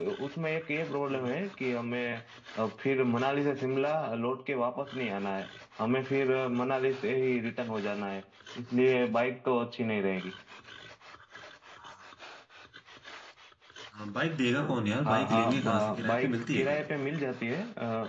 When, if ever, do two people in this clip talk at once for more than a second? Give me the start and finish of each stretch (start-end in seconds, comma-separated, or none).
15.1-16.9